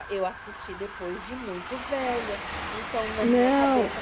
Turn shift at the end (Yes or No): No